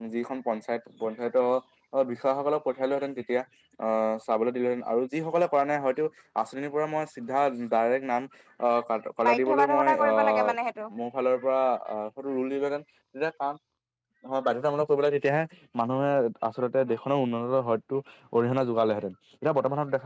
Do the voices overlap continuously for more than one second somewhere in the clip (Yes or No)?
Yes